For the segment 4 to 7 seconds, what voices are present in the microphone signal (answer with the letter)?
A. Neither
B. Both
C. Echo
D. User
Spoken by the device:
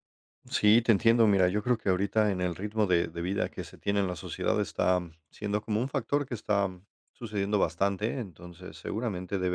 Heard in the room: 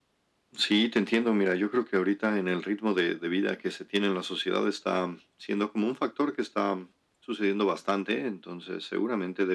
C